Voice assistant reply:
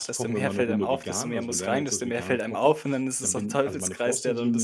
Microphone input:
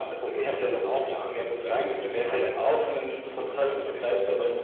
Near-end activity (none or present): present